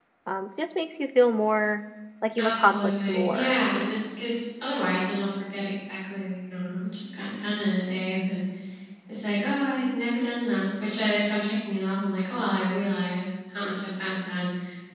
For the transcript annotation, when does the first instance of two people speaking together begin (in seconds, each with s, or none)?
2.4 s